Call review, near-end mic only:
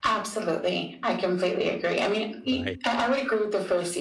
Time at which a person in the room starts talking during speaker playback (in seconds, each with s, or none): 2.4 s